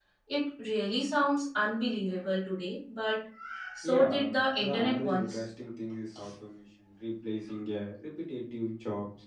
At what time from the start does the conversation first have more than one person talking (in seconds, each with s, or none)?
3.8 s